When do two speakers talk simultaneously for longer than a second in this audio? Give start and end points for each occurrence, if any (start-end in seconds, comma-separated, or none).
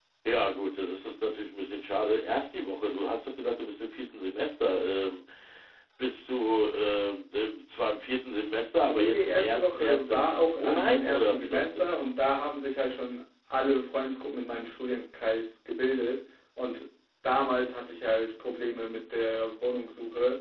8.8-11.9